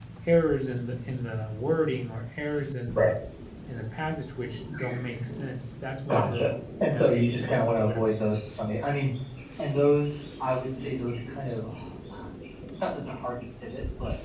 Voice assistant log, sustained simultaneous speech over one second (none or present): present